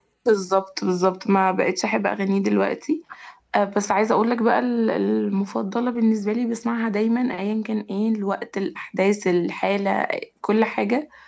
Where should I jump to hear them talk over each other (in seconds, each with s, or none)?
none